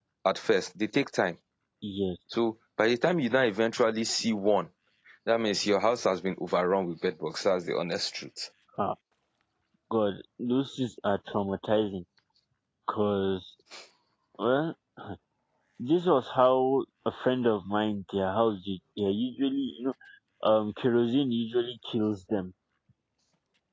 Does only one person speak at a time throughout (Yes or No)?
Yes